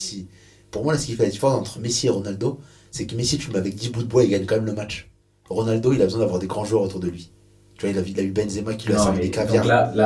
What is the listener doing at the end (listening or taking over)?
taking over